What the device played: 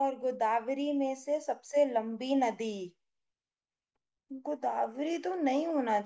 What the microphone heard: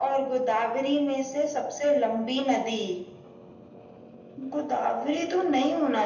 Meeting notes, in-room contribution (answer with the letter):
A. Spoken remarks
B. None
B